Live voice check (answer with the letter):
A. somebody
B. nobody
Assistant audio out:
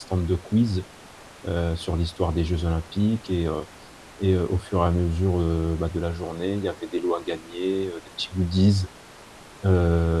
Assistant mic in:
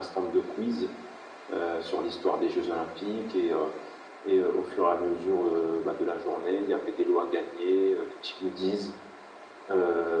B